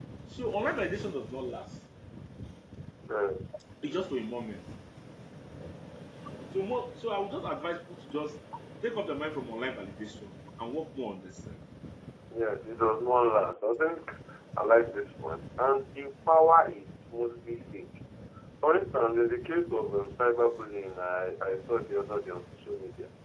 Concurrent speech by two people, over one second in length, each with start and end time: none

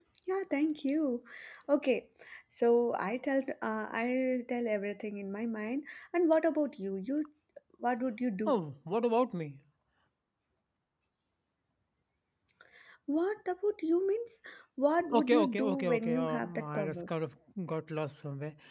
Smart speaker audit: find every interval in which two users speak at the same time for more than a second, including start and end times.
15.1-17.1

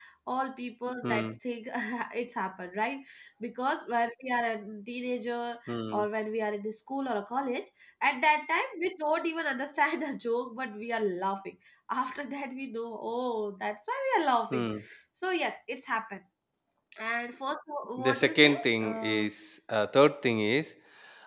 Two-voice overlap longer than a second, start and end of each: 18.0-19.3

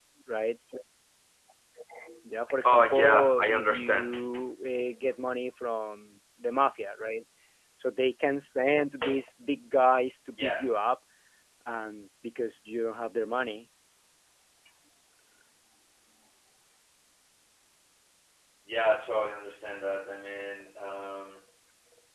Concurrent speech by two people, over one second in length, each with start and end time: 2.6-4.2

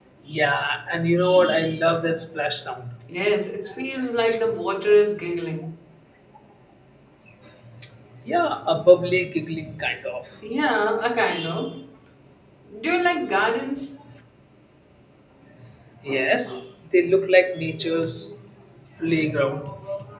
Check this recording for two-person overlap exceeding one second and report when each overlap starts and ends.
none

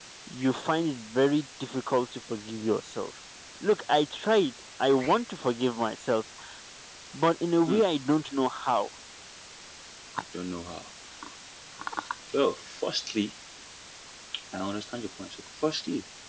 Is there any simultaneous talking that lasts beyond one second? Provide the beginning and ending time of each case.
none

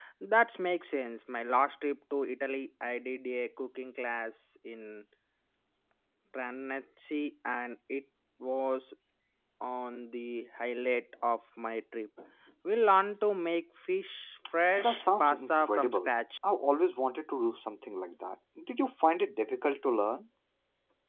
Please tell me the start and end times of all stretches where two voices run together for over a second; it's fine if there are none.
14.8-16.1

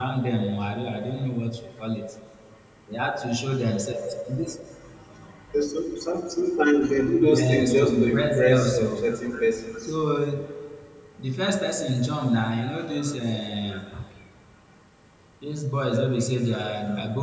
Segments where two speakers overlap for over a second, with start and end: 7.3-9.0

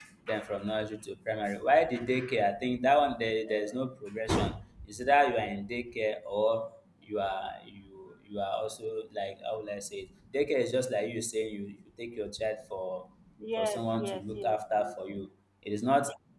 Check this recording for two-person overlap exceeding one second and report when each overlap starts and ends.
13.6-14.9

